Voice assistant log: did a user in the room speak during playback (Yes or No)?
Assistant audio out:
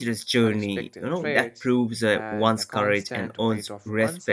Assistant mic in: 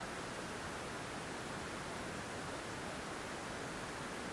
No